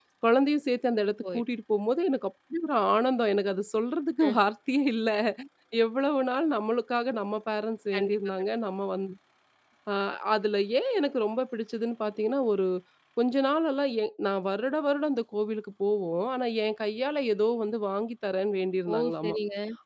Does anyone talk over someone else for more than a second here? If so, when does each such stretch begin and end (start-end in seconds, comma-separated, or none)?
none